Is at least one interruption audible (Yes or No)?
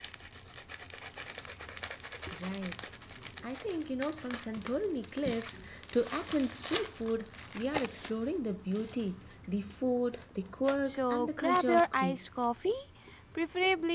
Yes